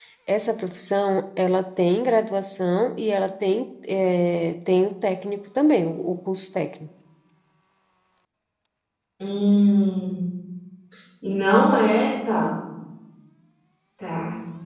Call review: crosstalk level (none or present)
none